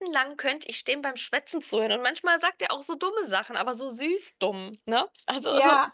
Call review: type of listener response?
taking over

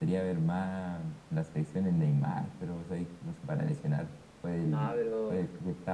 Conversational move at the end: listening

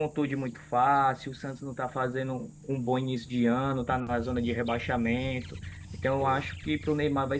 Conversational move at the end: listening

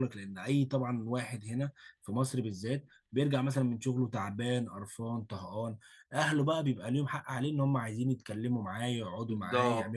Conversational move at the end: taking over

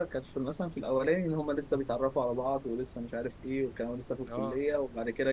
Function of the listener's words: listening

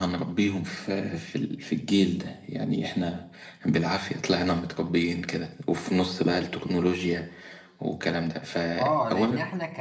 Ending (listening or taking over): taking over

